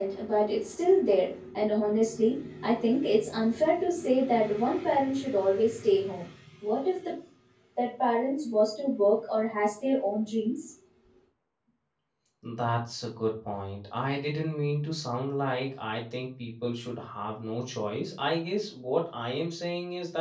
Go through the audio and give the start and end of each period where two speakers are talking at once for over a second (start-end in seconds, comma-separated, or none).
none